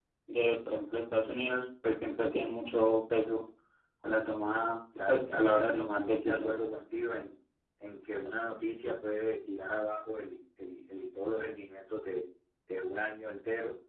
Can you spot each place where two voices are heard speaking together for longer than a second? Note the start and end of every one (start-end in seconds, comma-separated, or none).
5.1-6.6